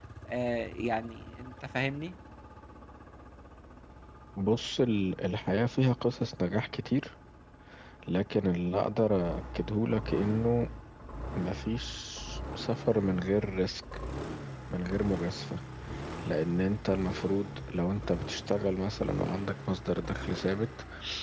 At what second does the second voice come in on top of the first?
none

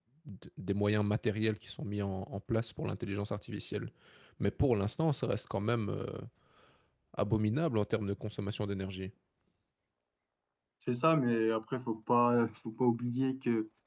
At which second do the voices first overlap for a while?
none

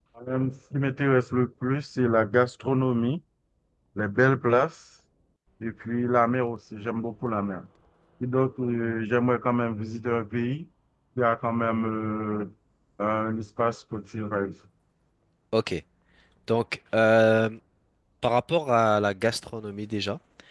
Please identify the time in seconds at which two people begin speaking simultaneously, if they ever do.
none

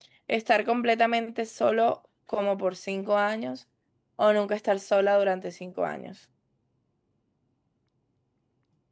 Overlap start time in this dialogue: none

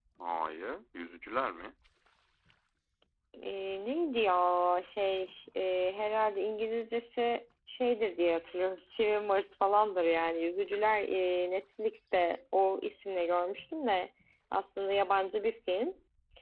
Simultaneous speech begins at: none

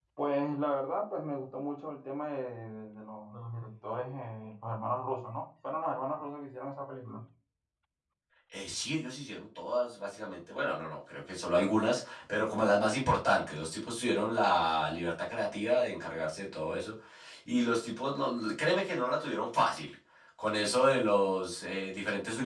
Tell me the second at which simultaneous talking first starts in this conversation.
none

